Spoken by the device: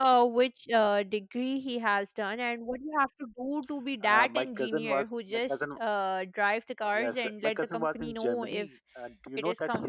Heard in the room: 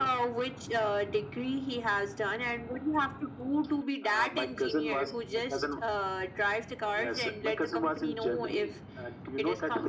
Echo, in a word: present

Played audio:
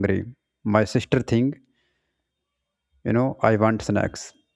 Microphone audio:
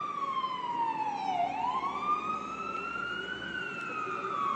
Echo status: none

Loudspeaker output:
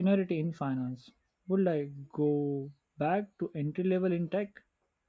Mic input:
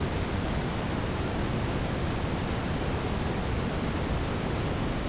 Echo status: none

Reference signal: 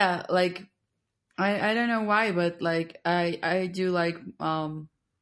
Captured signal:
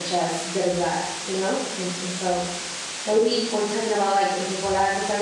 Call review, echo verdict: none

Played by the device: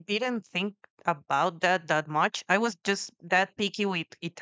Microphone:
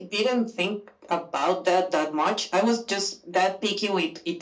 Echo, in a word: present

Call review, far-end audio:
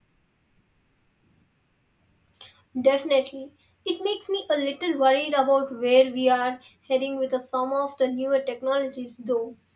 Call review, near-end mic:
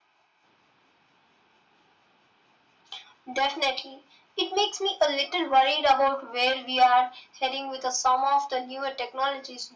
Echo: present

